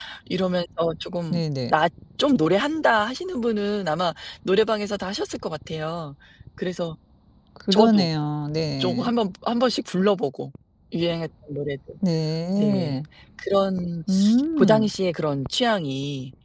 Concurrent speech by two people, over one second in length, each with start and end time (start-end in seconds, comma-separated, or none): none